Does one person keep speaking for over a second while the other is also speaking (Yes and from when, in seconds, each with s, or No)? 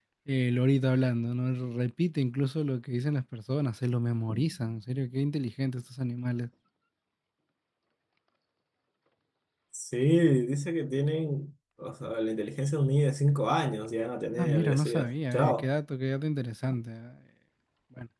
Yes, from 14.4 s